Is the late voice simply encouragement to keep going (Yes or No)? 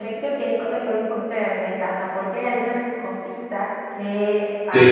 Yes